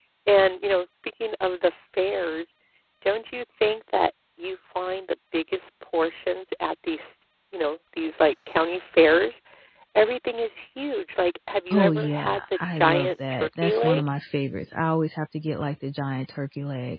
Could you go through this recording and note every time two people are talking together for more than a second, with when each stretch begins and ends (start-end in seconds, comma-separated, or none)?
11.7-14.0